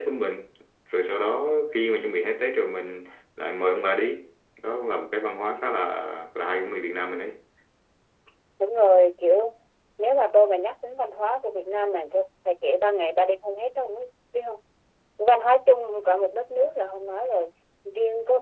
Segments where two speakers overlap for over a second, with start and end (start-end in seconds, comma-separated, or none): none